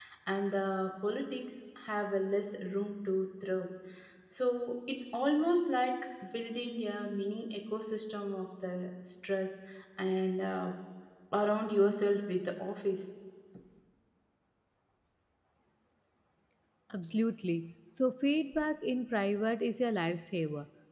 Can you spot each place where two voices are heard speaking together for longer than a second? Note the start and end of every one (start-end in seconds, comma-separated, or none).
none